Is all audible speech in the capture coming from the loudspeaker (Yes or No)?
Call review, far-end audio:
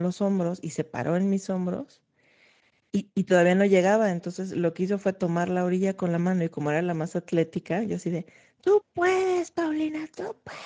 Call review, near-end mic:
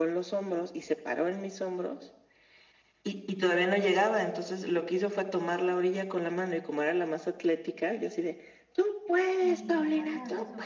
No